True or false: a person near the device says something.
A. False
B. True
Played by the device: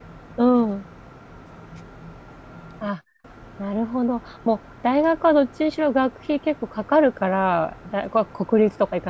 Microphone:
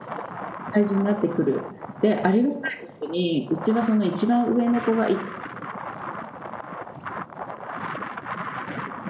B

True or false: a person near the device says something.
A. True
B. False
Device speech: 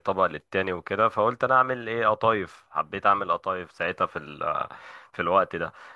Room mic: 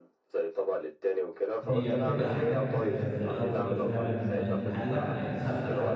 A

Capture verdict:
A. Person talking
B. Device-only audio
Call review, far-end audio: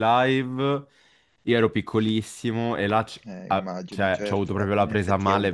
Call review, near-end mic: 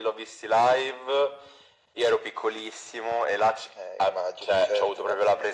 B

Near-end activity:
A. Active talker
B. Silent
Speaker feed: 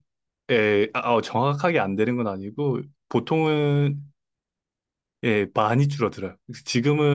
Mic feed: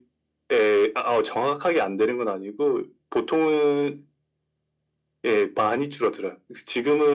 B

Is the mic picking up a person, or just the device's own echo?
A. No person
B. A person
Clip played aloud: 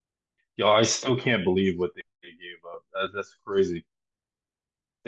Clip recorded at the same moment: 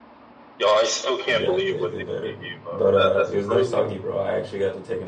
B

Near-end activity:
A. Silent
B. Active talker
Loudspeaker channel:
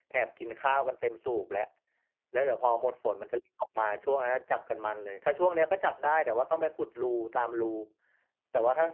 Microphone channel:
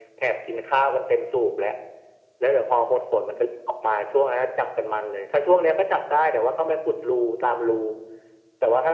A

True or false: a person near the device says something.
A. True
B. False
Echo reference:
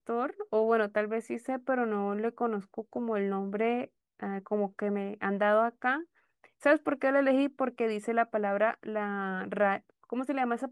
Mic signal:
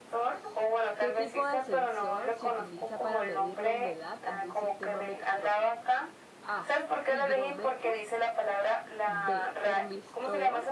A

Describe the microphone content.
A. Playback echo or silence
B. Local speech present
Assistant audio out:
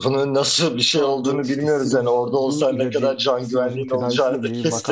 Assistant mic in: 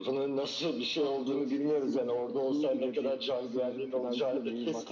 A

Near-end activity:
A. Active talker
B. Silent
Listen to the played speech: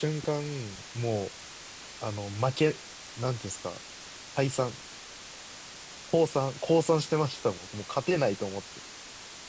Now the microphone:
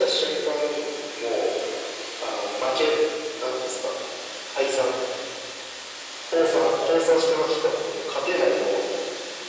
B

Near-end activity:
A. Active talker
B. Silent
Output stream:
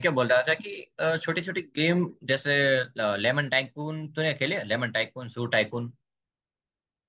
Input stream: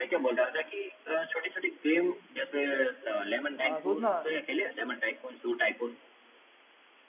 A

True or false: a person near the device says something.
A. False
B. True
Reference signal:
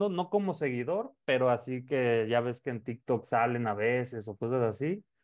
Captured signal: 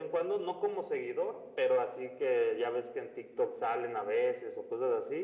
A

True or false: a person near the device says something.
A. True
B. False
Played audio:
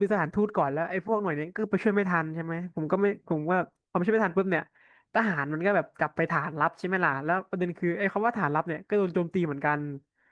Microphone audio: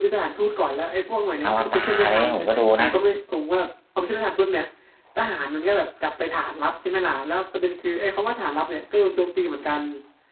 A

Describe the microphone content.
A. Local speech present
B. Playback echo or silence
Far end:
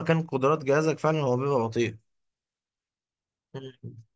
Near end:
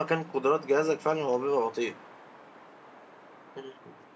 B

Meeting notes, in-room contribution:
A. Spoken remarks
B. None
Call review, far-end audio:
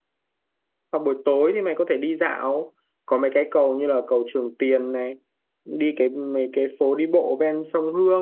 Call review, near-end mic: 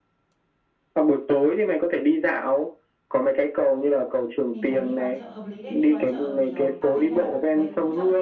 A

